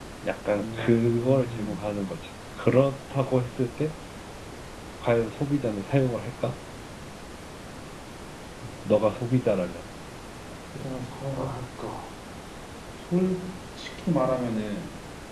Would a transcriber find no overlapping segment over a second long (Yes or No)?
No